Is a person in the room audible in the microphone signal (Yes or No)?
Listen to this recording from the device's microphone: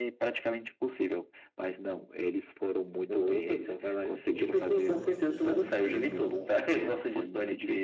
Yes